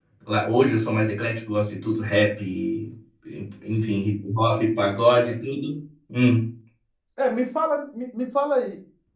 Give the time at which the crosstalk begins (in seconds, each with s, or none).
none